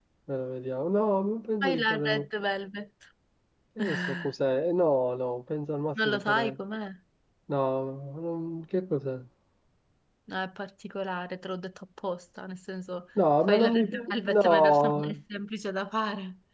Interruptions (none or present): present